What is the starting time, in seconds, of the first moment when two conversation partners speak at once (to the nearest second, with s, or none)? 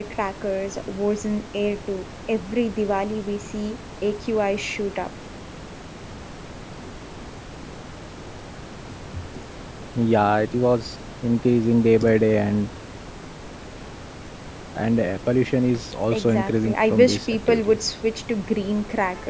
16 s